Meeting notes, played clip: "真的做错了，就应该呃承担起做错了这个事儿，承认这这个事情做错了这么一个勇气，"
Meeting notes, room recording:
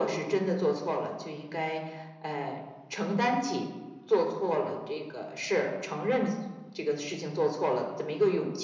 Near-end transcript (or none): none